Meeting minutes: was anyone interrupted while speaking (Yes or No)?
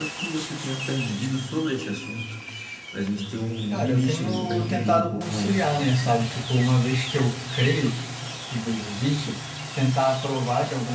Yes